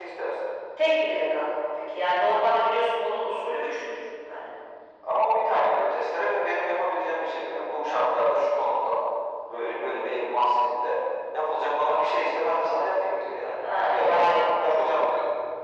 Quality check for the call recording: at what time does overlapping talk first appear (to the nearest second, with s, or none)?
14 s